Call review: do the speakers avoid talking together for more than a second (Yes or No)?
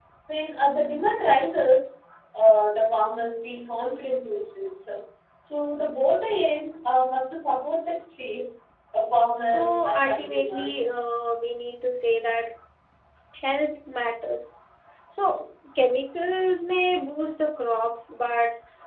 No